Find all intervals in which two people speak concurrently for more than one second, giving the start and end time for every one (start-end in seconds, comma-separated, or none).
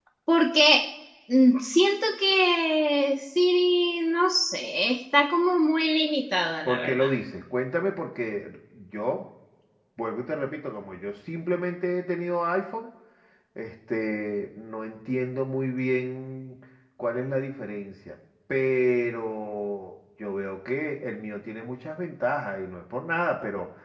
none